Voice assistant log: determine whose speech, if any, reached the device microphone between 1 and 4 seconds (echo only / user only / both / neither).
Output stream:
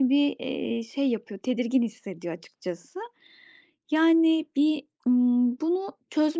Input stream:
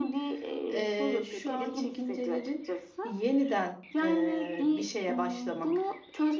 both